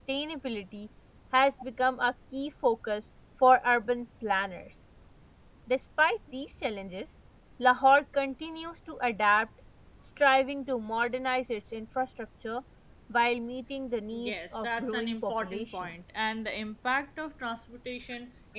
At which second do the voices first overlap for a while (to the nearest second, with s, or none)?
14 s